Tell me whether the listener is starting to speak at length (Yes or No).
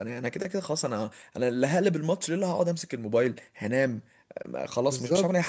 Yes